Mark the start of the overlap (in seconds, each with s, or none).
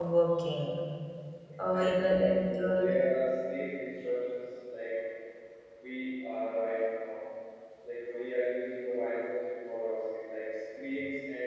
1.7 s